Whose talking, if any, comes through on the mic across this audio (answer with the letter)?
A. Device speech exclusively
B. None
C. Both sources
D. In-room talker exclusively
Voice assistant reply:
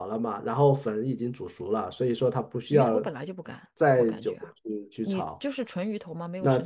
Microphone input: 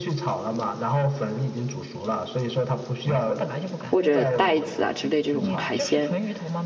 C